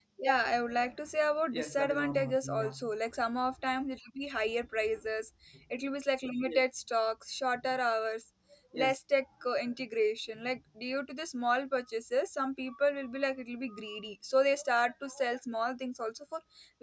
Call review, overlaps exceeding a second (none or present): present